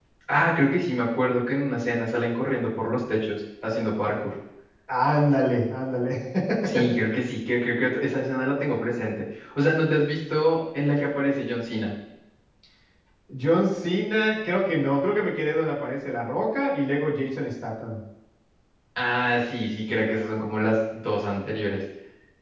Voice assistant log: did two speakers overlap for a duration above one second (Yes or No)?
No